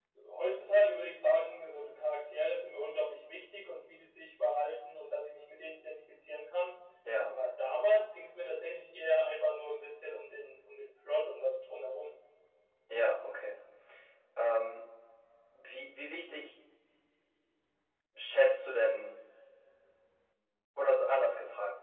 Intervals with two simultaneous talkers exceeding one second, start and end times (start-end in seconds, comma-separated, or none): none